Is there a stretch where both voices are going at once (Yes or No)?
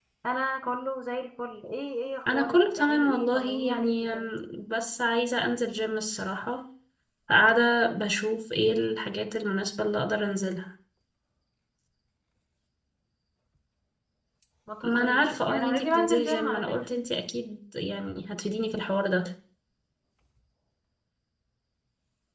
Yes